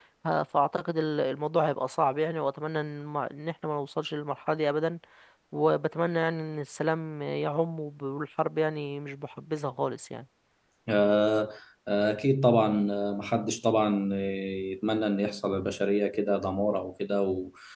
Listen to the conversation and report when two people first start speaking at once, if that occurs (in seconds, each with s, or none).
none